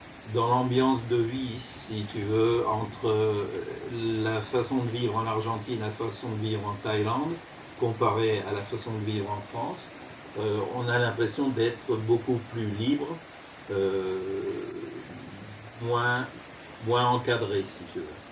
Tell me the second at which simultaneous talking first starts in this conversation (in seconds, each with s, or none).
none